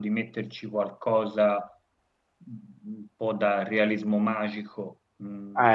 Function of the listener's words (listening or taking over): taking over